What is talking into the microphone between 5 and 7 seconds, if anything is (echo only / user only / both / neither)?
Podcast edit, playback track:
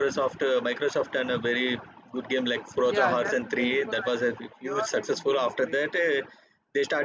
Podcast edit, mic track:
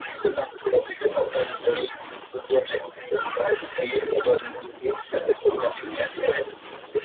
echo only